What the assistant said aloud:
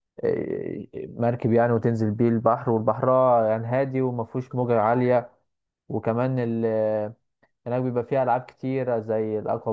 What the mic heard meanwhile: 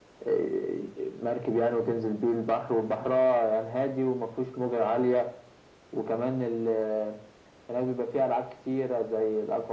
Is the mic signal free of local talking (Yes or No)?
Yes